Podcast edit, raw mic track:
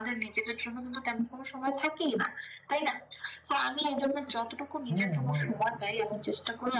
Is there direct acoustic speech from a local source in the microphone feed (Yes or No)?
Yes